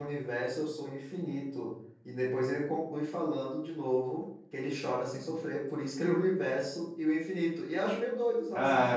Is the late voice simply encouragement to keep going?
No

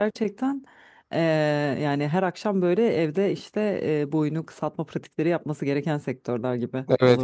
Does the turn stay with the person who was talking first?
No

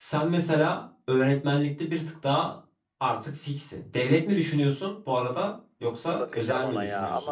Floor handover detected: Yes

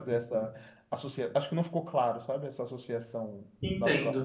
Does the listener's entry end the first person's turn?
Yes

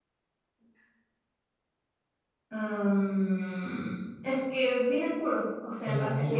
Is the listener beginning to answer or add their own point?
Yes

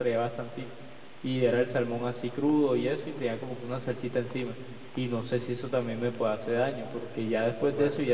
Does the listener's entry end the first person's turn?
No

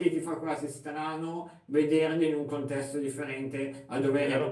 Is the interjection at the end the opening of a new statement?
No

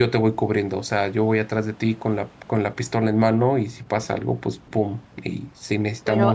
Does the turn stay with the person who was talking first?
No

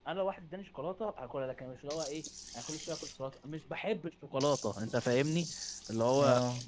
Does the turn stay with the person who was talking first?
Yes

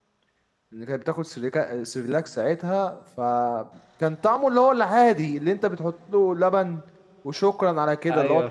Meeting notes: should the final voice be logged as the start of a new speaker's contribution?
No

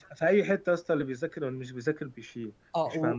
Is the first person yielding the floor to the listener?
Yes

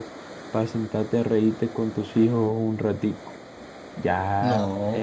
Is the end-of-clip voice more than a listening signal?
No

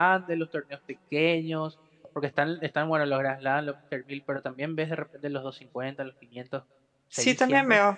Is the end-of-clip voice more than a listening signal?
Yes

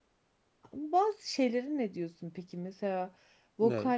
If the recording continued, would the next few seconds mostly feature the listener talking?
No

